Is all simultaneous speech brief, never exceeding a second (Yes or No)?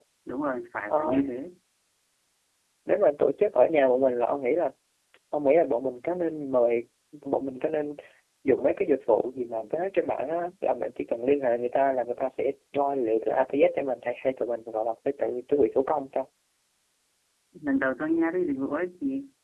Yes